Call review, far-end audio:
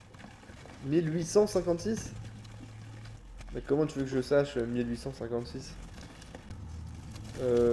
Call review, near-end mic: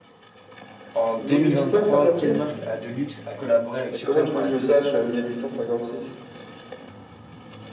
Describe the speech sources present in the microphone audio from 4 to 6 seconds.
both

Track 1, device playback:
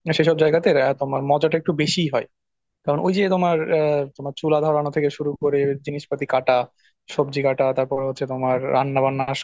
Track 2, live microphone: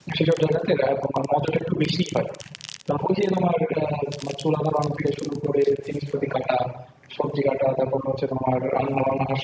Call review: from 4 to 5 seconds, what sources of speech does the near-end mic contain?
echo only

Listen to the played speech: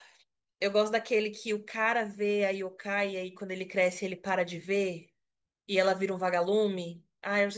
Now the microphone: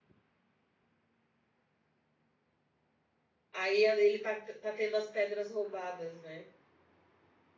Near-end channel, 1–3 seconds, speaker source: neither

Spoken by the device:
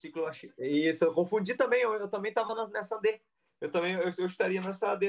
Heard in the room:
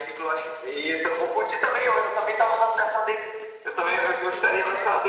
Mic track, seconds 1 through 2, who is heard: echo only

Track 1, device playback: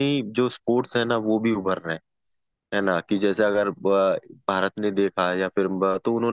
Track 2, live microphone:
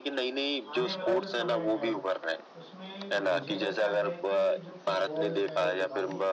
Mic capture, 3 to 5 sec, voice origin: both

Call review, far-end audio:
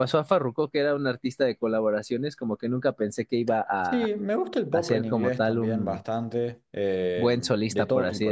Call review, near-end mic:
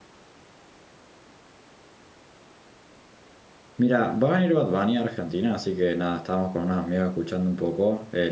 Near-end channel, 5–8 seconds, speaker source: user only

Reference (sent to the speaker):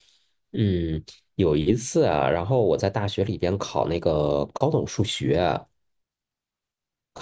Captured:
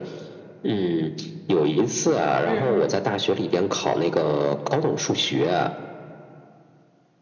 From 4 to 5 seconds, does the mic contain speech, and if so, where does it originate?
echo only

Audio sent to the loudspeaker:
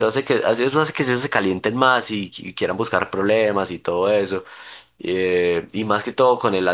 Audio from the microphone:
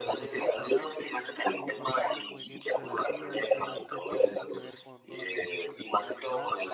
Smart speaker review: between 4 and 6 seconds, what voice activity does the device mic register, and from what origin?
both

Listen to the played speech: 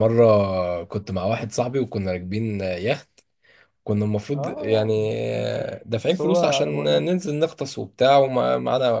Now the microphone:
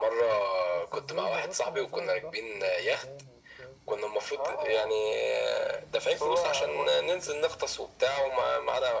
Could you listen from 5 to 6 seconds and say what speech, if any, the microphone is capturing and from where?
echo only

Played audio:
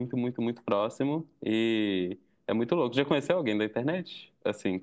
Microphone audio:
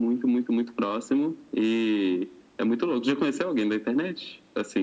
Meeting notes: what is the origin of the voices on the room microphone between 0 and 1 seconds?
echo only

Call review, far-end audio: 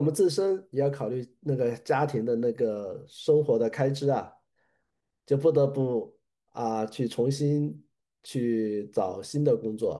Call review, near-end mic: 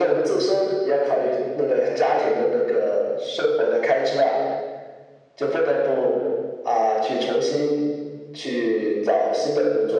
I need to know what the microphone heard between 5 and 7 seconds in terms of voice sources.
echo only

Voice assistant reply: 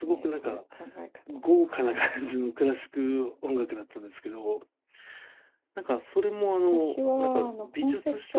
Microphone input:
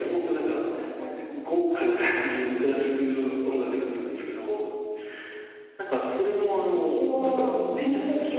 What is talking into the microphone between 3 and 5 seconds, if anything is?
echo only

